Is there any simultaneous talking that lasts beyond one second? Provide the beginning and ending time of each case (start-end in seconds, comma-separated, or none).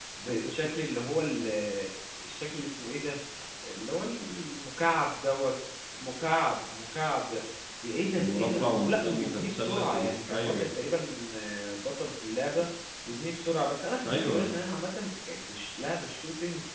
8.2-10.7